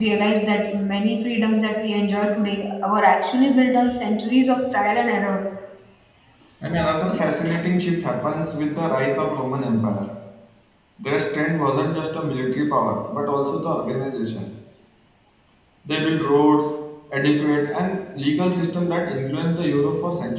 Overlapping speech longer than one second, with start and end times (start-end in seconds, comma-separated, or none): none